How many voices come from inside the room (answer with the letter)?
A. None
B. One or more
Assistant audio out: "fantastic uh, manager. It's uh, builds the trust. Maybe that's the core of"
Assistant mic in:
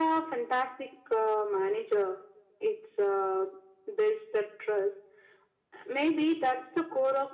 A